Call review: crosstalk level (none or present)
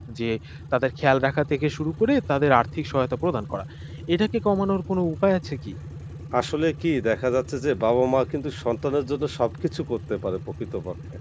none